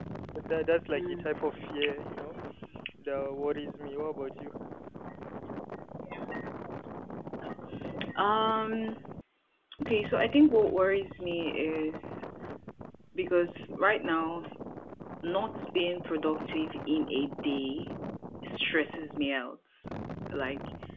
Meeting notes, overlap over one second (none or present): none